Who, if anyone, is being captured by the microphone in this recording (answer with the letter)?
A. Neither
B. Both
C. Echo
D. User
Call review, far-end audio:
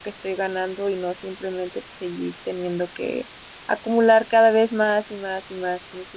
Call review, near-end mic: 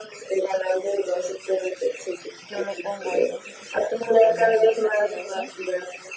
B